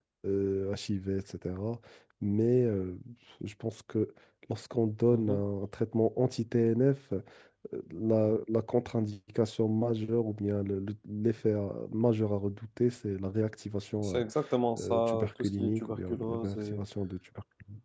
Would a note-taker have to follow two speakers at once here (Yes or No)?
Yes